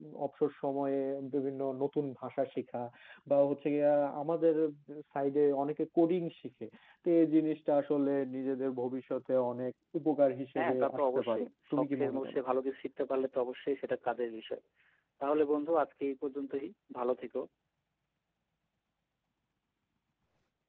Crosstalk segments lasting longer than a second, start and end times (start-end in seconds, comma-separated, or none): 10.6-12.4